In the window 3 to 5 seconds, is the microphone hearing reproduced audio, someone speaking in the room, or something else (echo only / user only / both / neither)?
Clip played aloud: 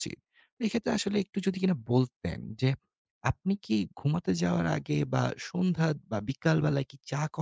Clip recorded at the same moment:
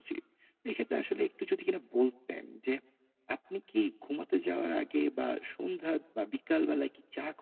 echo only